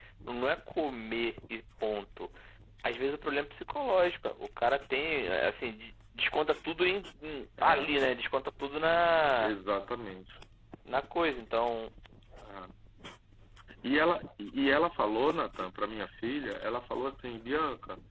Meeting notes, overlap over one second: none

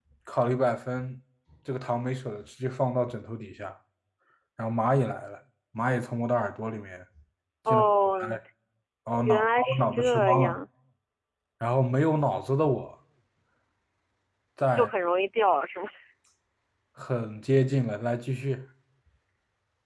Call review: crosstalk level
present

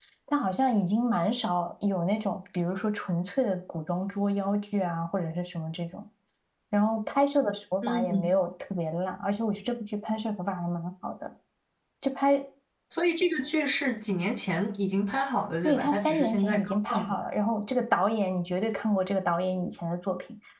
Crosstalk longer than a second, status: present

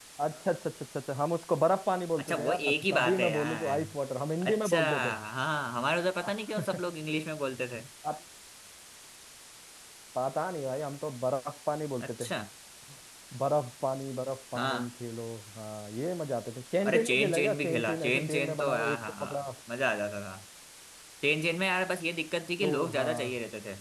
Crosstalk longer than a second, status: present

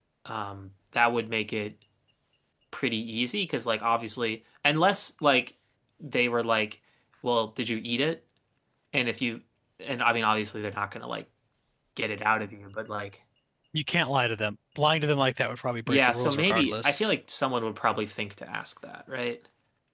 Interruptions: present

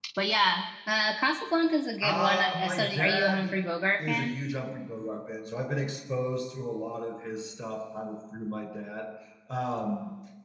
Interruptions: present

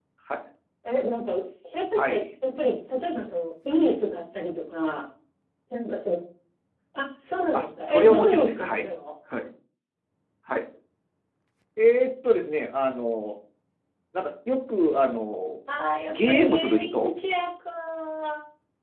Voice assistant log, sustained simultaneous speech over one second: present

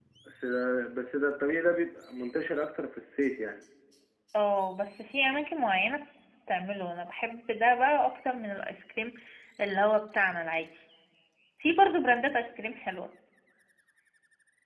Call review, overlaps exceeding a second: none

